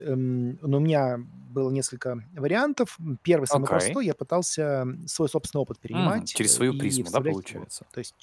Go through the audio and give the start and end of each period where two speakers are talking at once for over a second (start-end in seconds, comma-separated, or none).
5.9-7.6